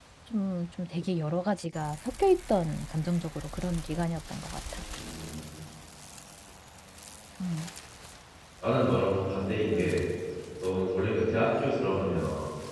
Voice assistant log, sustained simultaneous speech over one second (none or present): none